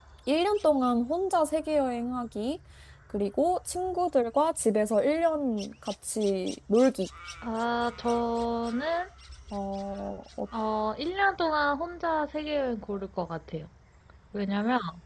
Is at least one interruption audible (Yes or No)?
No